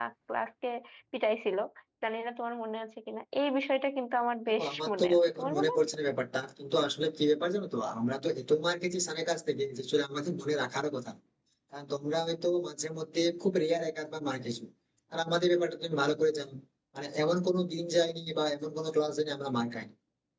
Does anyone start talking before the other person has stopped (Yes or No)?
Yes